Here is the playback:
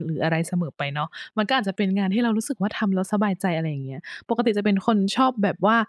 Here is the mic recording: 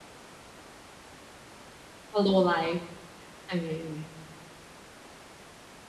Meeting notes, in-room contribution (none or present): present